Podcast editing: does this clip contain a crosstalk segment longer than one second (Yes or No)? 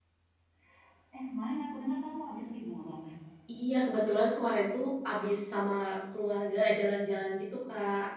No